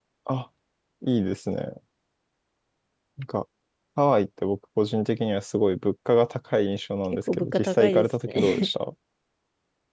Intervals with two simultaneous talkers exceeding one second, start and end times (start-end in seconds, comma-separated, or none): 7.3-8.7